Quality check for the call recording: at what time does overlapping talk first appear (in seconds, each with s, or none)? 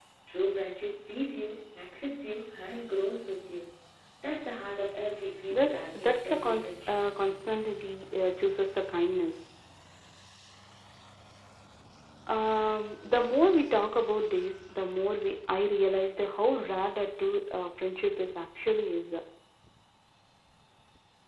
5.5 s